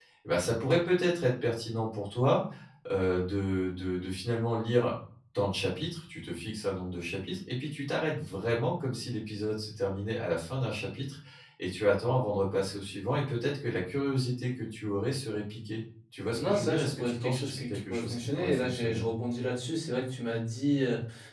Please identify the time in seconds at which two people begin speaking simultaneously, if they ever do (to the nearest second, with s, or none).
16 s